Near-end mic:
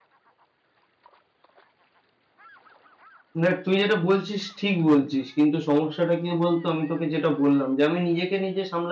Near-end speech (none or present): present